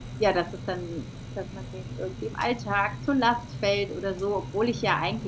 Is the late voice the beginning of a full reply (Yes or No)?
No